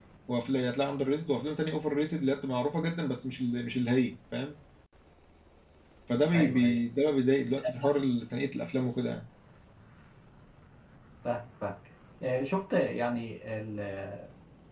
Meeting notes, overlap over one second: none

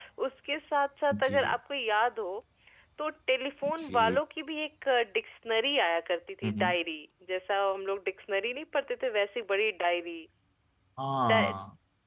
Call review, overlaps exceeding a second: none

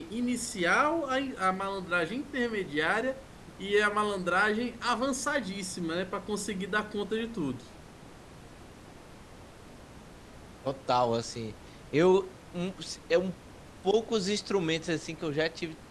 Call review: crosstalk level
none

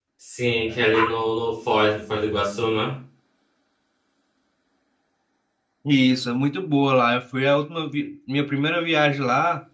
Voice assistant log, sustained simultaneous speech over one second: none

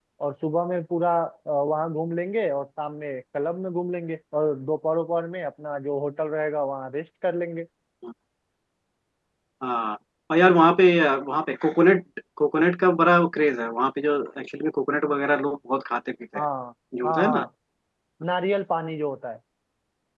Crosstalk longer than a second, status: none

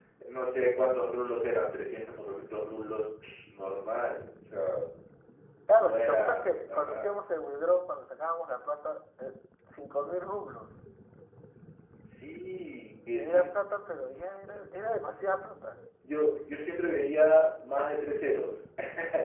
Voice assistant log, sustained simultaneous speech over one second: present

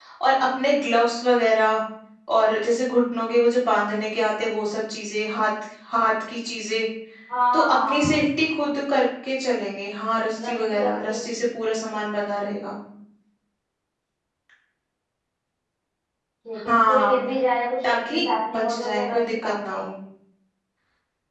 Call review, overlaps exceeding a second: present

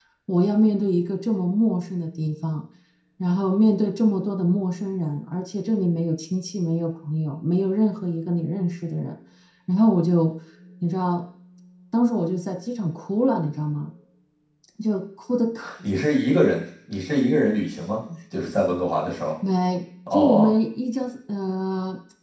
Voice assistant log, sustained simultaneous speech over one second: none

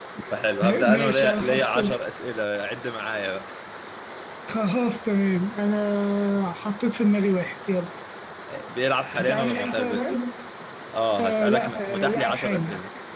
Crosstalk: present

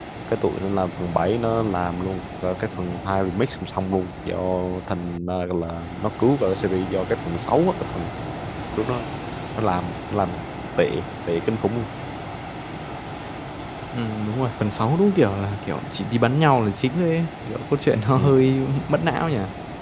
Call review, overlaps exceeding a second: none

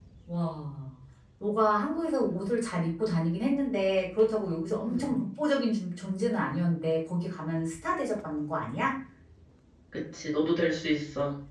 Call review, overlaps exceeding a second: none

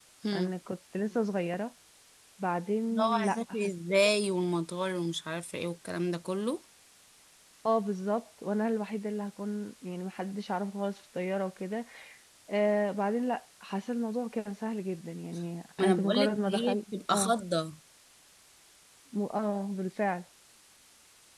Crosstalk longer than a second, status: present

